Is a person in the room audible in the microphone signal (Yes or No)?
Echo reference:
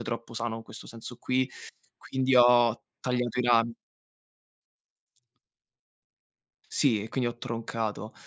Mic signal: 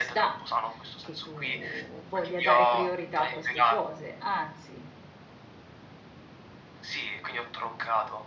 Yes